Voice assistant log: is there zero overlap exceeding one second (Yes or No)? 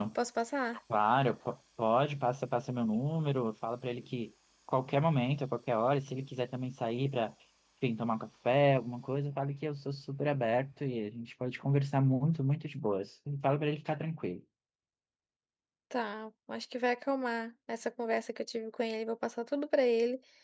Yes